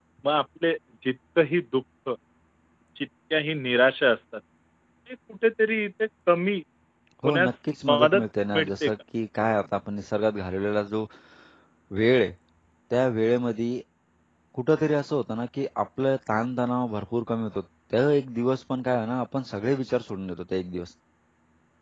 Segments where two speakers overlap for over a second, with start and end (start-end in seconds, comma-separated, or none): 7.2-8.9